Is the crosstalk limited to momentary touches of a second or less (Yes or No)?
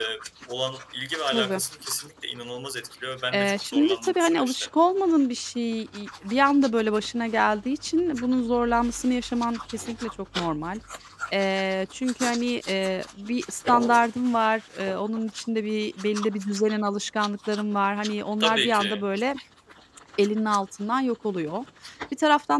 No